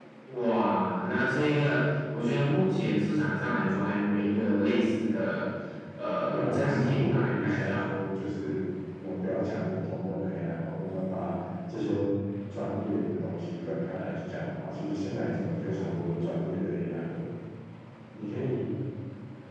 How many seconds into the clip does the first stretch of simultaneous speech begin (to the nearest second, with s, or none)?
6 s